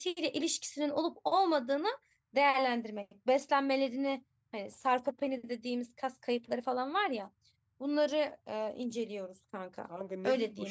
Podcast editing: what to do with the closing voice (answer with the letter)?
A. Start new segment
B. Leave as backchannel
A